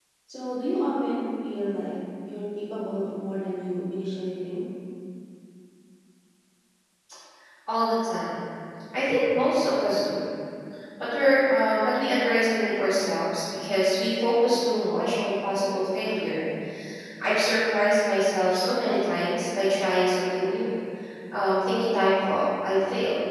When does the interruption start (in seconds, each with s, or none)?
none